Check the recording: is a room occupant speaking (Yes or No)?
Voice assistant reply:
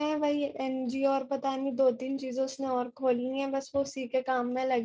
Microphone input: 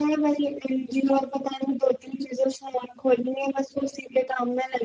No